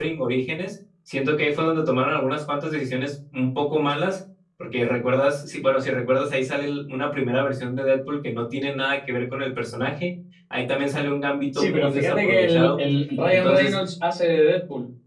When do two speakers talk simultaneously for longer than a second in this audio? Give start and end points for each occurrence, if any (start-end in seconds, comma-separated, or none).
11.5-12.8